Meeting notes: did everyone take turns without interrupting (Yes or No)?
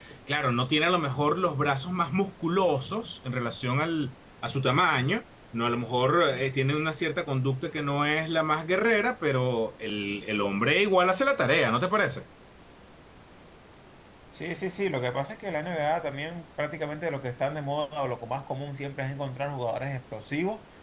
Yes